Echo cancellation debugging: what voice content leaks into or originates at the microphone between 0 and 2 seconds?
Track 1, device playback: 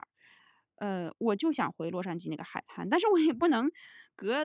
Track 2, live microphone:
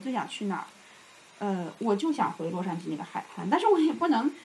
echo only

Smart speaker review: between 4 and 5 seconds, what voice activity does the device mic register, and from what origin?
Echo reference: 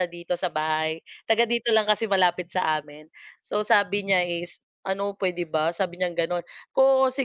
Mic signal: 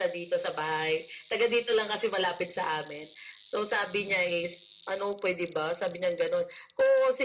echo only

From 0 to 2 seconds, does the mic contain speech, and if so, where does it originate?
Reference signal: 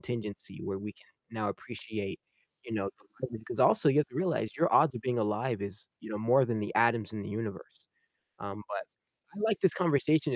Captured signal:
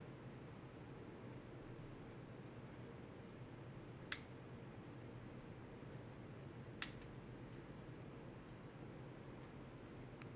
neither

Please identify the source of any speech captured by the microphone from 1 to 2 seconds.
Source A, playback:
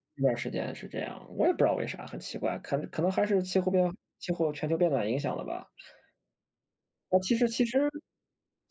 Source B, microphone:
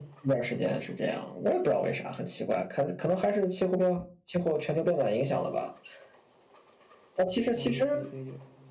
echo only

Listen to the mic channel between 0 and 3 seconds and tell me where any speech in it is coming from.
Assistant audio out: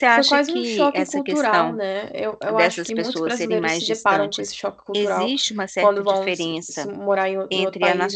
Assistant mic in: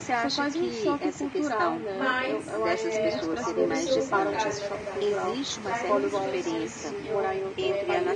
both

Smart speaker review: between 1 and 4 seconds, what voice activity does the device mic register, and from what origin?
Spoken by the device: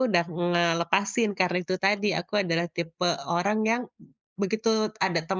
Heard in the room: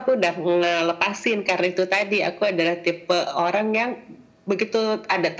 echo only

